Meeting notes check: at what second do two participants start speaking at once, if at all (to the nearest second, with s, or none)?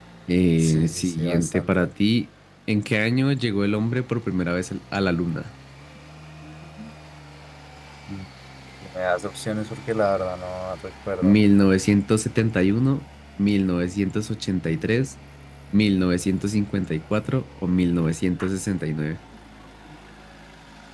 1 s